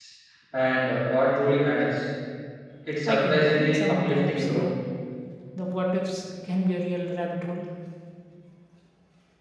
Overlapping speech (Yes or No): Yes